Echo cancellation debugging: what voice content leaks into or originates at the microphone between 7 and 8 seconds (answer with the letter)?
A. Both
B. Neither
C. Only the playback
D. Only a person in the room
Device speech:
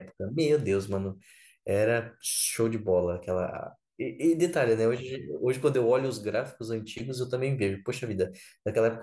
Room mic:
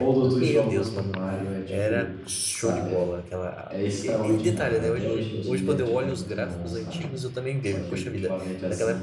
A